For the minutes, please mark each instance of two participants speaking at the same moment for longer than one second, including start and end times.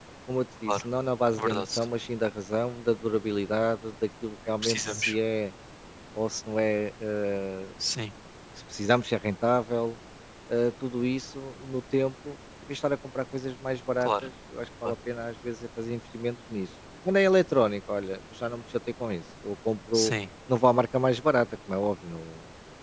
none

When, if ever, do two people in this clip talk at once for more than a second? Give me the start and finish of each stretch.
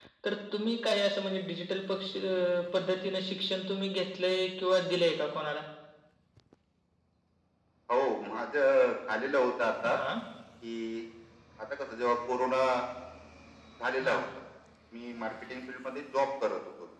none

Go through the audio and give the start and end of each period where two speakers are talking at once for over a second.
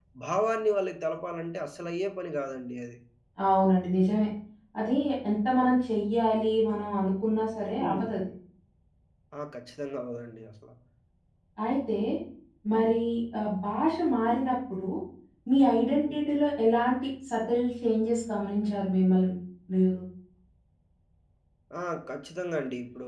none

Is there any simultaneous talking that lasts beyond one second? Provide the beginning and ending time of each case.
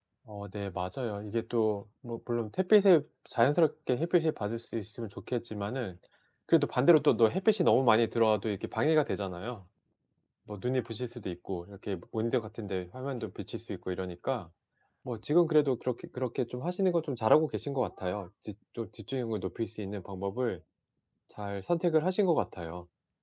none

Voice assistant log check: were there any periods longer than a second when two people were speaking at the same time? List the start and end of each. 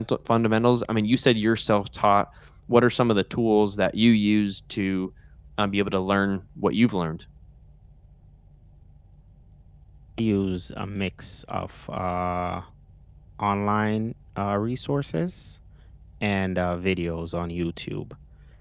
none

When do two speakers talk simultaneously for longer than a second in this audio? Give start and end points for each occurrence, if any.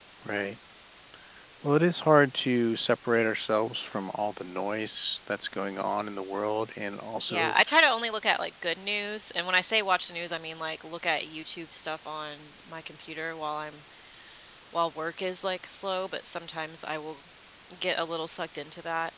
none

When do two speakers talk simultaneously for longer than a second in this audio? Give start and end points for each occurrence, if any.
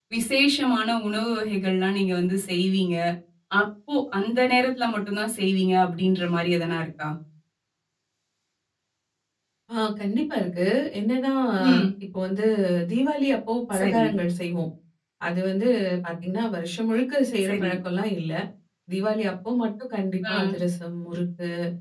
none

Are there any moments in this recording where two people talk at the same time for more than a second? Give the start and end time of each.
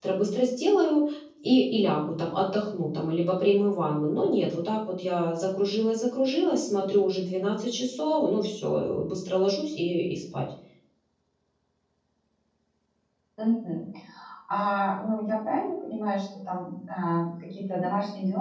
none

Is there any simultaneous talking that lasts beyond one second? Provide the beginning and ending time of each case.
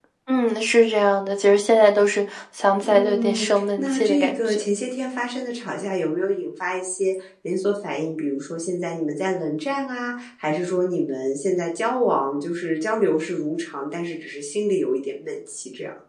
2.8-4.6

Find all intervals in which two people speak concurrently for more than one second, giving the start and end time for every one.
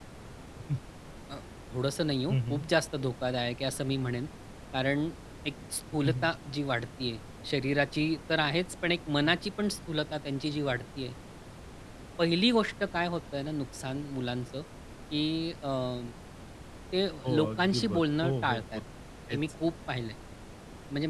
17.4-18.8

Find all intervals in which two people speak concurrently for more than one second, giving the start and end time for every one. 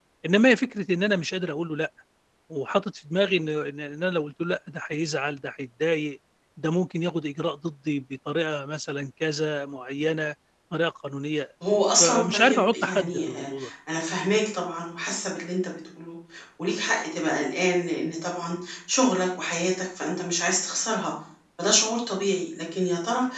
12.0-13.4

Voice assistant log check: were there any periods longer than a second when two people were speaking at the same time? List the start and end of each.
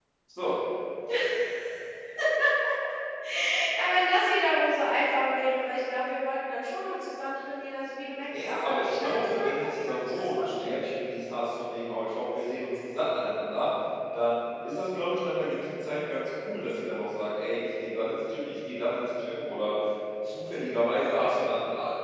8.3-10.8

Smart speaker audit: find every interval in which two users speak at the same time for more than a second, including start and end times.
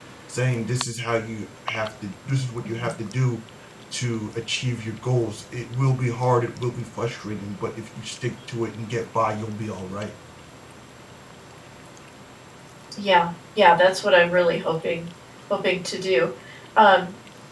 none

